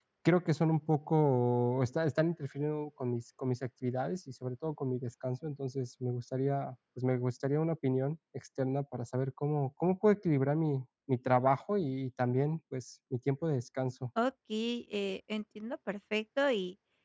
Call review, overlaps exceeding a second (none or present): none